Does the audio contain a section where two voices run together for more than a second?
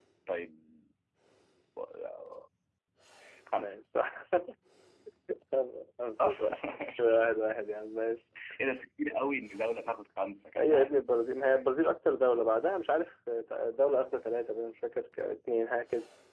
No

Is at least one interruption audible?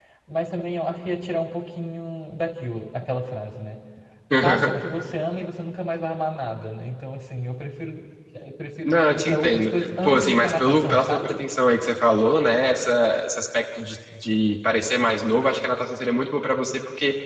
Yes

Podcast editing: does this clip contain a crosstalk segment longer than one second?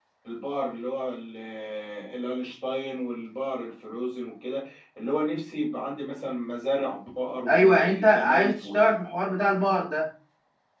Yes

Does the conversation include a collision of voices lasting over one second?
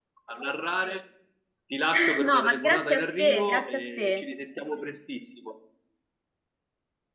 Yes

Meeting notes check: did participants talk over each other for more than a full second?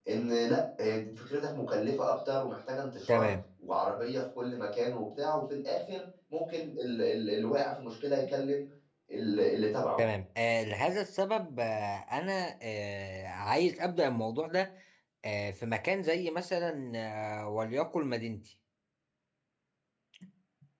No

